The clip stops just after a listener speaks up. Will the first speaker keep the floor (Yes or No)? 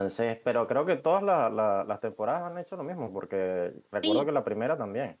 Yes